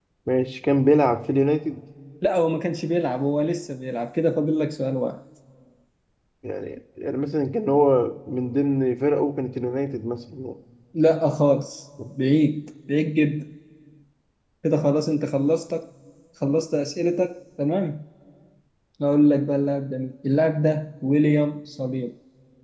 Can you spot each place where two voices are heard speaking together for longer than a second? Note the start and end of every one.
none

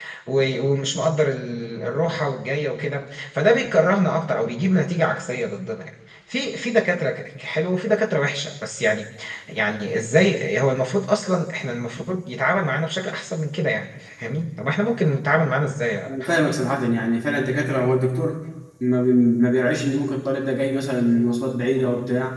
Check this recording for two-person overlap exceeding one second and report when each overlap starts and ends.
none

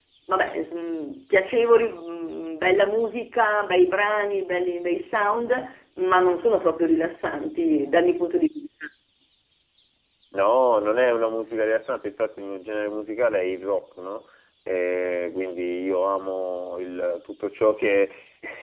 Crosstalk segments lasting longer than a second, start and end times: none

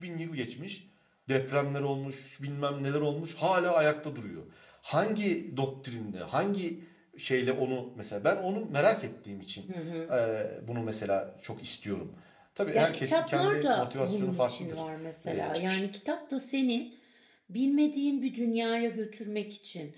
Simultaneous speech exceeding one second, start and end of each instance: 12.7-14.8

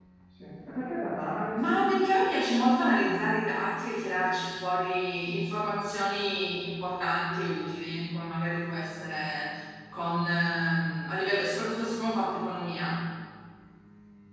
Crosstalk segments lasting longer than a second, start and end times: none

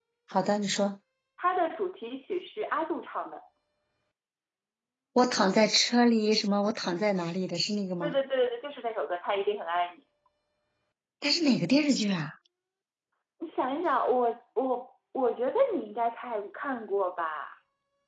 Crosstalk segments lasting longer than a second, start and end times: none

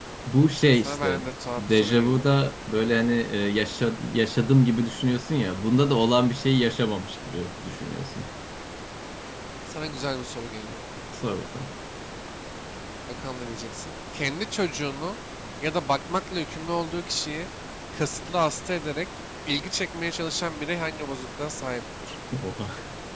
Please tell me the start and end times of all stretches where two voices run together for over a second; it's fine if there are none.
0.7-2.3

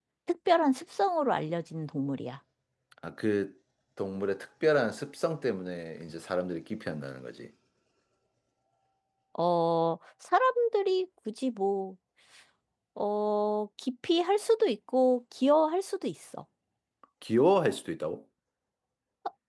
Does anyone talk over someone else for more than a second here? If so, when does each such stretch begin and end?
none

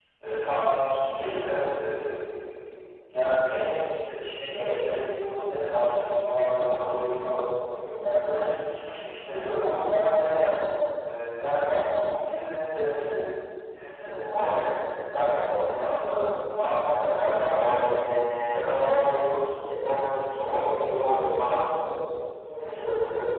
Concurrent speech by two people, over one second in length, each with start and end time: 16.9-18.1

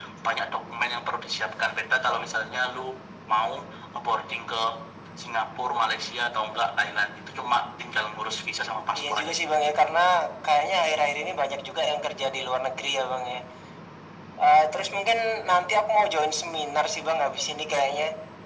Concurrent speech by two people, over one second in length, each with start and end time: none

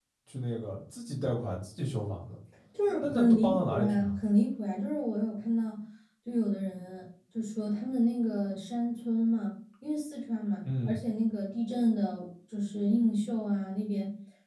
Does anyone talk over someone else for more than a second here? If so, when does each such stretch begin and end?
3.0-4.2

